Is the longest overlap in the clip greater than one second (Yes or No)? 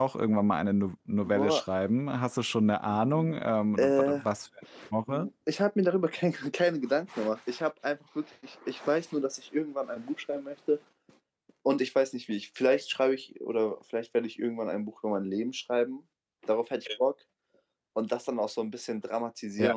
No